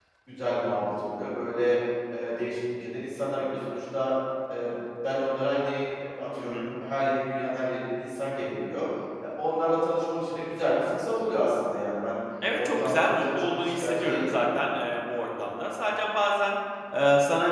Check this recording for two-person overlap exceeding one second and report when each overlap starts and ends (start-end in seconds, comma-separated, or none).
12.6-14.3